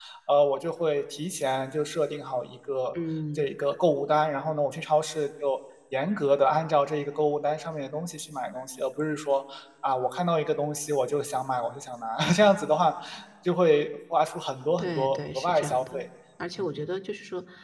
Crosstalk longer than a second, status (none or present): present